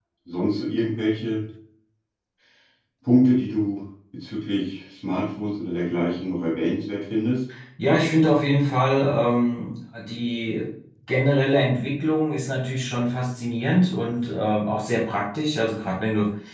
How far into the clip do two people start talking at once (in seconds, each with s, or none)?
none